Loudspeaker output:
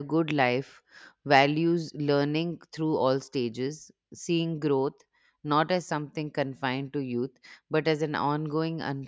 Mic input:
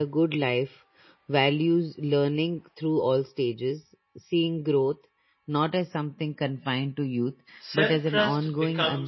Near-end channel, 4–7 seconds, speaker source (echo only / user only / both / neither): echo only